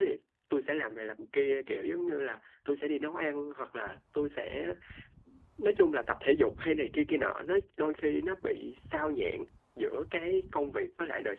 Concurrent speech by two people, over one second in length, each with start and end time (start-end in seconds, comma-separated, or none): none